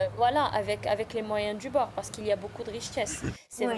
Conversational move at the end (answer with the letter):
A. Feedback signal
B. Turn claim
A